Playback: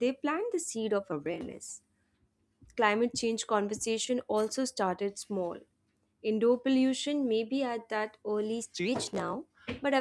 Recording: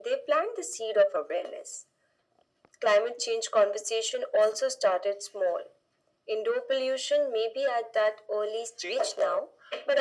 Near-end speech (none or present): none